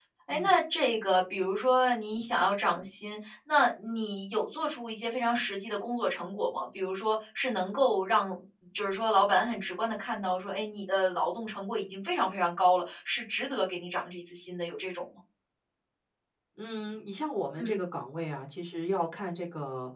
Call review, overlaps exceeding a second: none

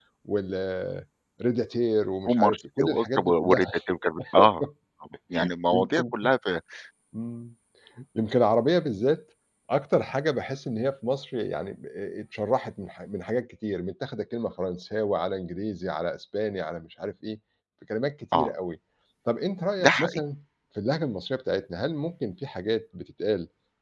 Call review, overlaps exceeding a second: present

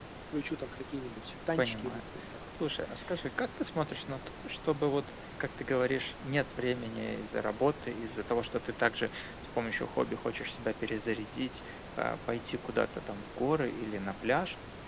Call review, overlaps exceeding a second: none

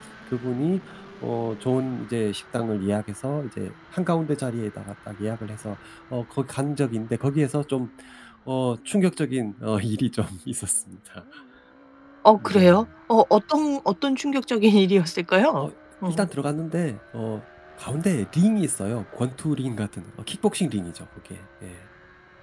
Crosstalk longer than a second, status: none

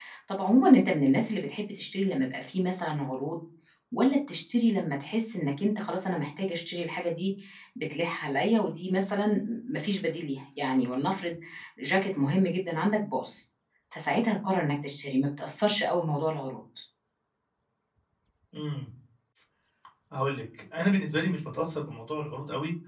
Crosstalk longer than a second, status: none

